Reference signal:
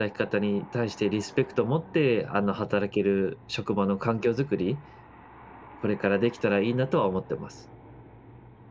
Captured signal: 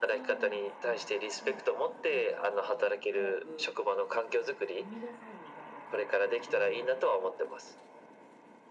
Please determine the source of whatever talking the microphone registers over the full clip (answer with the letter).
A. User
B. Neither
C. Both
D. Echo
C